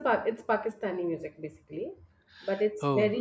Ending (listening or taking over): listening